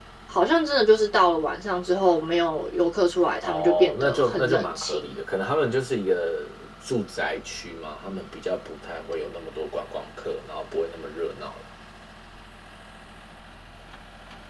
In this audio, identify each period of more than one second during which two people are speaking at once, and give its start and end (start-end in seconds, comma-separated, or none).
3.4-5.1